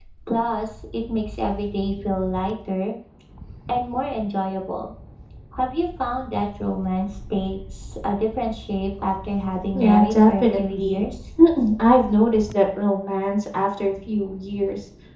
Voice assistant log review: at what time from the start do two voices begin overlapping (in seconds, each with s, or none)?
9.7 s